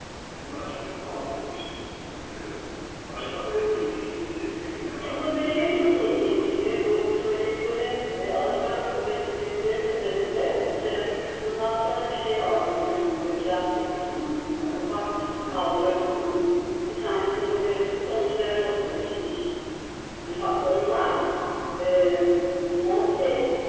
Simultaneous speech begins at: 5.0 s

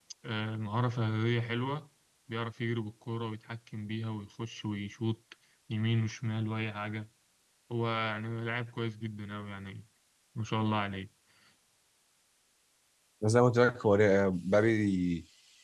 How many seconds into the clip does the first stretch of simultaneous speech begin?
none

